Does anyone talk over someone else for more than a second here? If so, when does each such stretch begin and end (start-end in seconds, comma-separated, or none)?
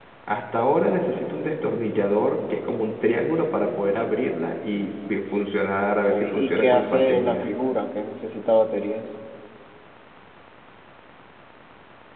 6.1-7.4